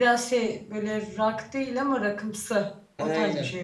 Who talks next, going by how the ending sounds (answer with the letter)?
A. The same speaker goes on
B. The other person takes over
B